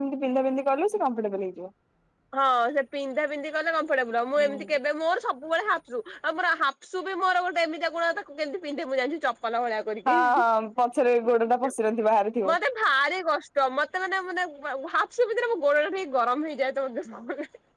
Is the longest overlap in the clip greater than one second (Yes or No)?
No